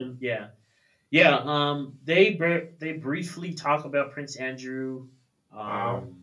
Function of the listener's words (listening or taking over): listening